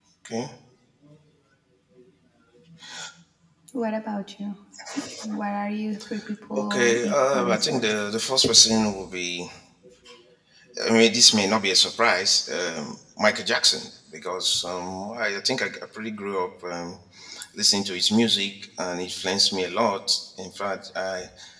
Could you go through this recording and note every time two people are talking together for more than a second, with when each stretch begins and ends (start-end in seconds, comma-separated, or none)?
6.5-8.1